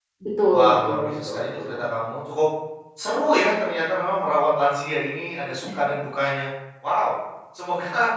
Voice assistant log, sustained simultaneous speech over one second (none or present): present